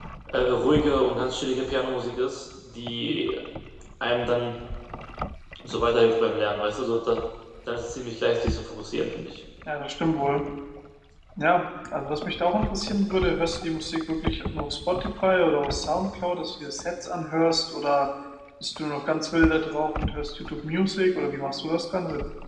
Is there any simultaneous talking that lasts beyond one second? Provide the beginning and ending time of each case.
none

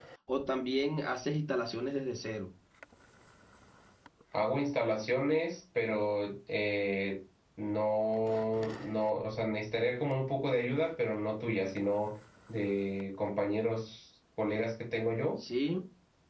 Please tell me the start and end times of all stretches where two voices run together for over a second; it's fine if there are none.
none

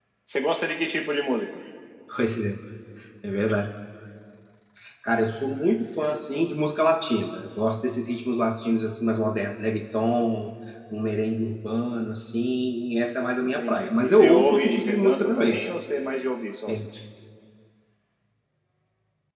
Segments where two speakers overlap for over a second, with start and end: 13.4-15.6

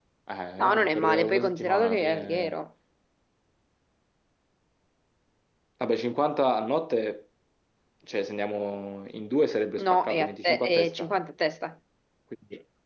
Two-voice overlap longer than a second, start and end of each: 0.6-2.6, 9.8-11.1

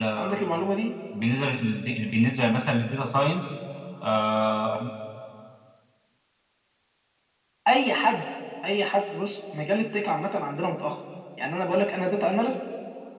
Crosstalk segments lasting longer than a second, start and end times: none

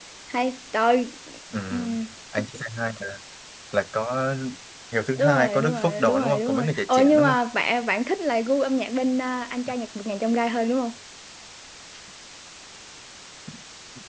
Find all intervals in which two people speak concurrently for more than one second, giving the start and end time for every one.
5.2-7.4

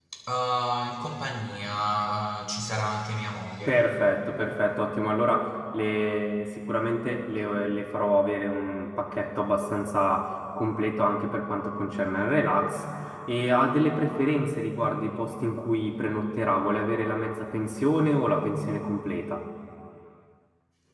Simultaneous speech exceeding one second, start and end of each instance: none

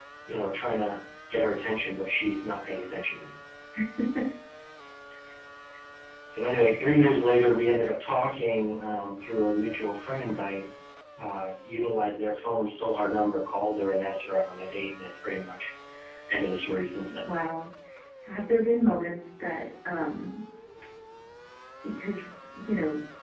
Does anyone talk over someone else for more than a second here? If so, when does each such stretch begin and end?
none

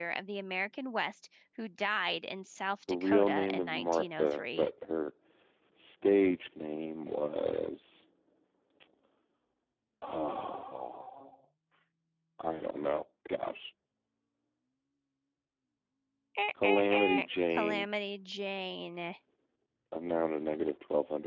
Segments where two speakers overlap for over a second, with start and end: 2.9-4.7, 16.6-17.9

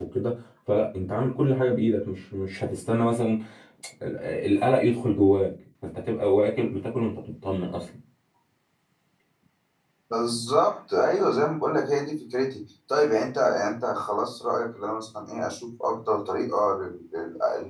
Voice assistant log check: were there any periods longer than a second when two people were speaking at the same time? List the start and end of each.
none

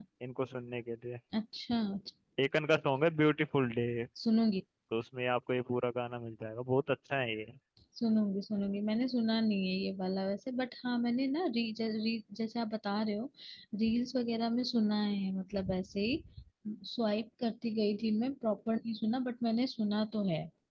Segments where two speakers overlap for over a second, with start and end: none

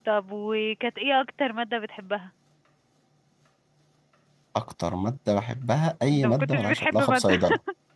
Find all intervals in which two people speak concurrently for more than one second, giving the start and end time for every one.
6.1-7.3

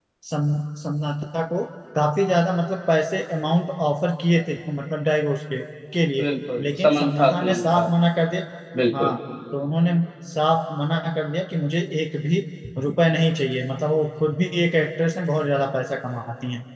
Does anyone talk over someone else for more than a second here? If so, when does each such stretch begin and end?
6.6-7.8

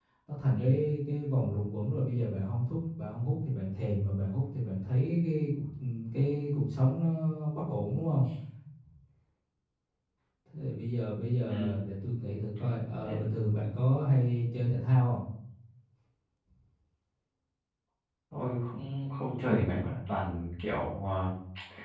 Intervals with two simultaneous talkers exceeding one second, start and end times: none

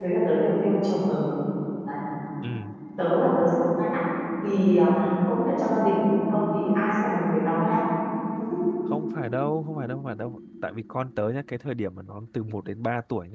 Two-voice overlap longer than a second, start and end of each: none

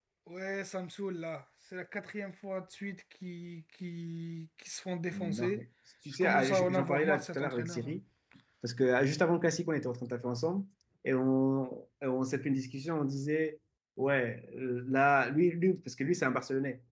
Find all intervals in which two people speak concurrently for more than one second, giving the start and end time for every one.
6.2-7.9

